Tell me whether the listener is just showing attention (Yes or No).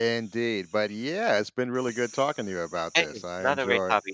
No